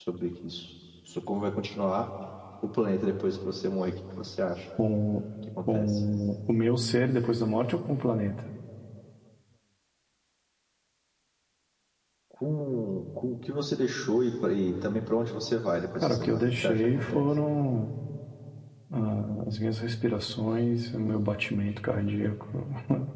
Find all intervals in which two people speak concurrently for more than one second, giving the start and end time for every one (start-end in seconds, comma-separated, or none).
16.0-17.2